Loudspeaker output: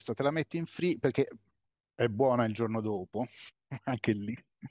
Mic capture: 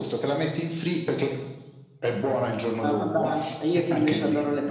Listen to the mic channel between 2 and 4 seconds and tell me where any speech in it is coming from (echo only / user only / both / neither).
both